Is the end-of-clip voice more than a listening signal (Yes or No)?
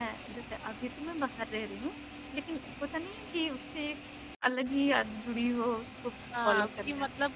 Yes